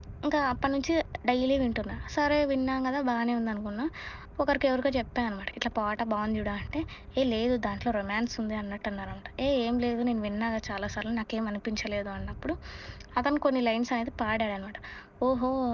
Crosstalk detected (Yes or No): No